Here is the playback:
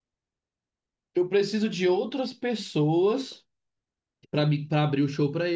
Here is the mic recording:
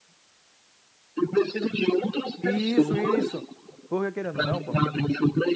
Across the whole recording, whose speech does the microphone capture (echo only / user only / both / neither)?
both